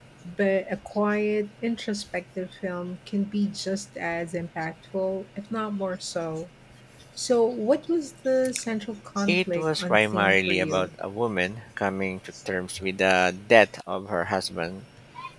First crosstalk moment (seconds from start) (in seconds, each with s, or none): 9.3 s